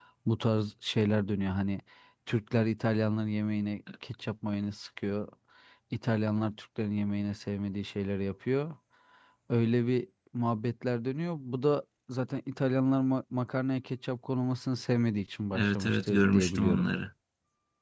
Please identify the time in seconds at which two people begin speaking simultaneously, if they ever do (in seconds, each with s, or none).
15.5 s